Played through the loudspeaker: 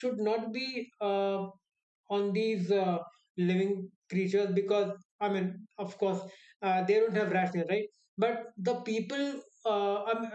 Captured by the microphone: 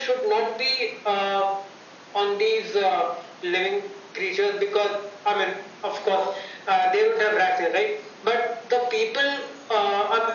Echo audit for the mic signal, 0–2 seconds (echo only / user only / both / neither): echo only